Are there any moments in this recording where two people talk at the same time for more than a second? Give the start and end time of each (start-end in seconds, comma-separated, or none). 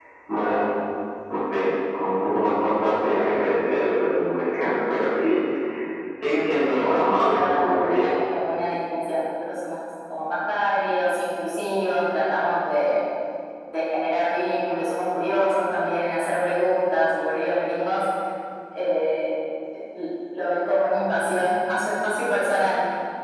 6.8-8.1